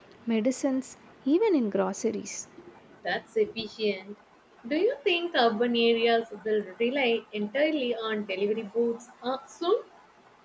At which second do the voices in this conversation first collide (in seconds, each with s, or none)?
none